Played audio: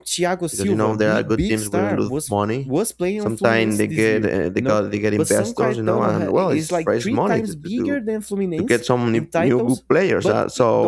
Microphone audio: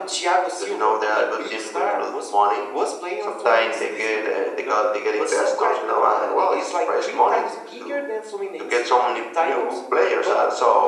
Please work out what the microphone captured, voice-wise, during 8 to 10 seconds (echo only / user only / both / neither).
echo only